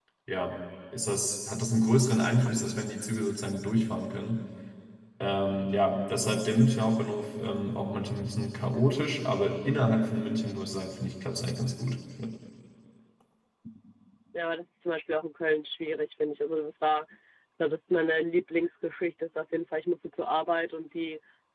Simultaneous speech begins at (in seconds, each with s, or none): none